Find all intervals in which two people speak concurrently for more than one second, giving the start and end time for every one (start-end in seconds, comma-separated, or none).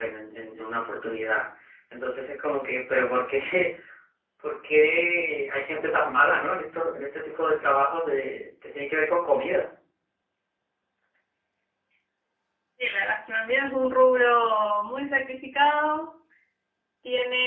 none